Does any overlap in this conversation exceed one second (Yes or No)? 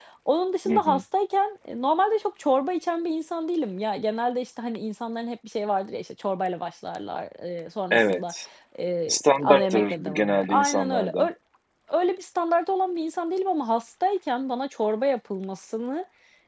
Yes